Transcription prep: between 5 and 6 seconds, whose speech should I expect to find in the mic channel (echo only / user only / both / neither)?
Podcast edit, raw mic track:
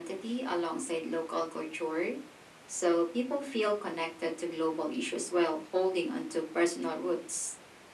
echo only